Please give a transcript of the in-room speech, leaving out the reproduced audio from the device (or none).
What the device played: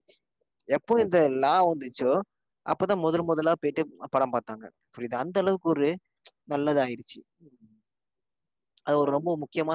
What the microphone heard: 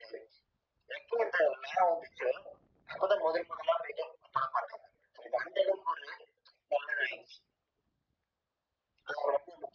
none